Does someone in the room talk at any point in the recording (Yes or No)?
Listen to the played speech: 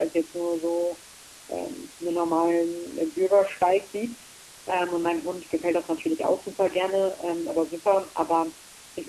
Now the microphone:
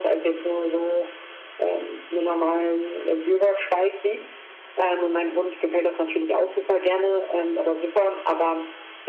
No